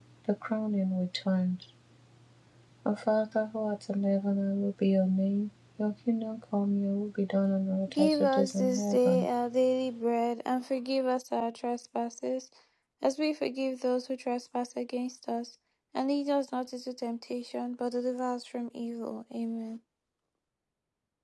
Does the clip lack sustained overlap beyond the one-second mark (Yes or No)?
No